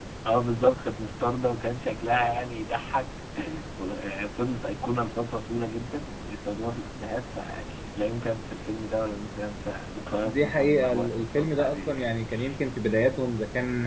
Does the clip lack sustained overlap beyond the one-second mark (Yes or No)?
No